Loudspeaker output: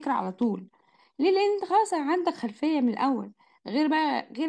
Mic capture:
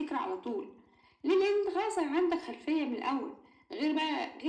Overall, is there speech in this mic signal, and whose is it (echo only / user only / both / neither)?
echo only